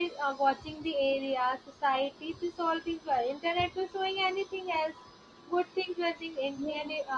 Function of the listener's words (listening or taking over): taking over